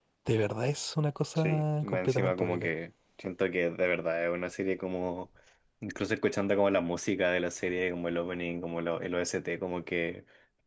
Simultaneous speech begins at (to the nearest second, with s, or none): 1 s